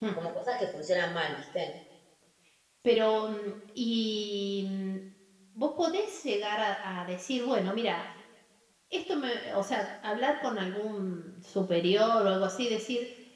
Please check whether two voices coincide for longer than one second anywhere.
No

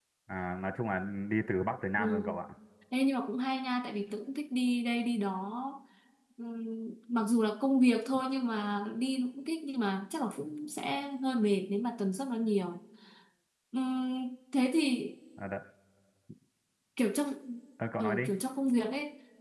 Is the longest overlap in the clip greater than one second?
No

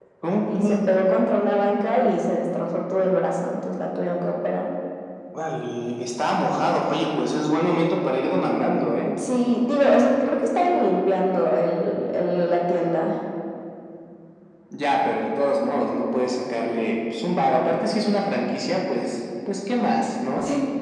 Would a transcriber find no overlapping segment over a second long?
Yes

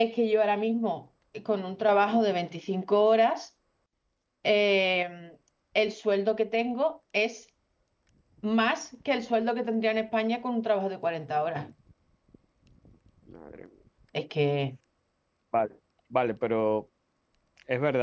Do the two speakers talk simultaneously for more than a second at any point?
No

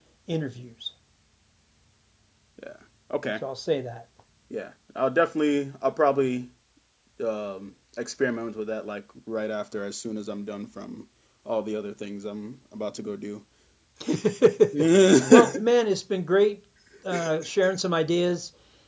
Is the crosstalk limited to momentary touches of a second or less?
Yes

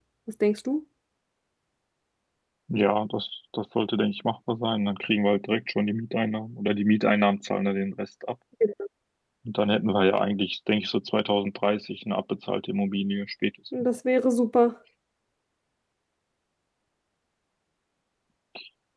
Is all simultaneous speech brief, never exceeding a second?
Yes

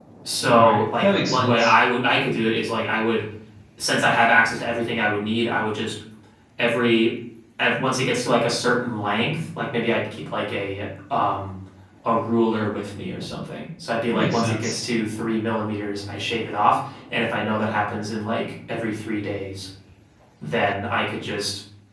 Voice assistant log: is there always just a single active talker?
No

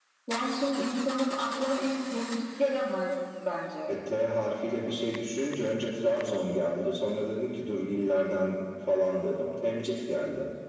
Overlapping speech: No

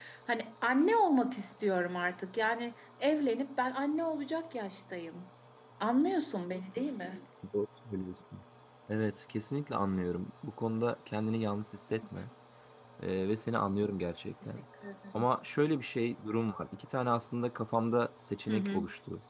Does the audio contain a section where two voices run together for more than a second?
No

